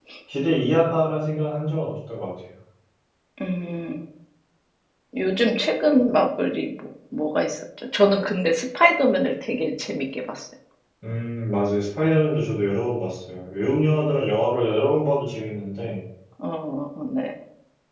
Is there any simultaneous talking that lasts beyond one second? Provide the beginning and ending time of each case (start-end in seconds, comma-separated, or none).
none